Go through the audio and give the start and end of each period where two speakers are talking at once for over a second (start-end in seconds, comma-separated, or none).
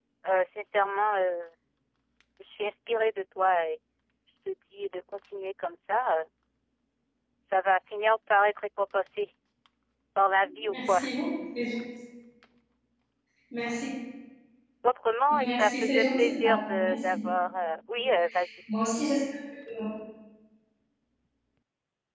15.3-17.3